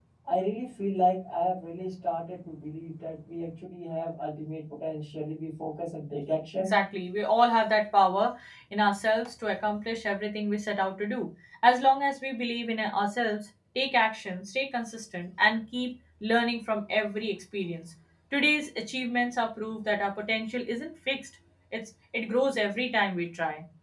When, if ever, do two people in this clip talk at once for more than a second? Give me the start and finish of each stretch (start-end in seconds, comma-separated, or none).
none